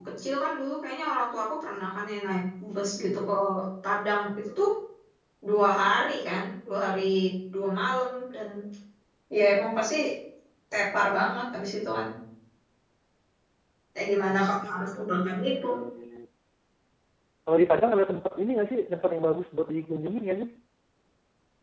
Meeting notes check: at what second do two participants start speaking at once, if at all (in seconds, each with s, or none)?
14.3 s